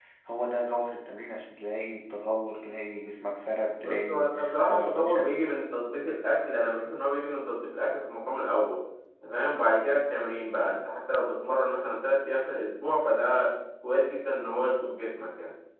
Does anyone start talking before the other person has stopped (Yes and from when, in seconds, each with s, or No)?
Yes, from 3.8 s